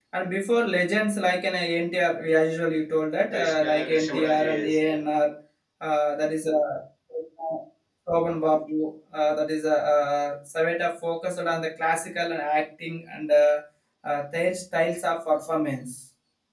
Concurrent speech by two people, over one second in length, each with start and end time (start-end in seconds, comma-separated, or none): 3.3-5.0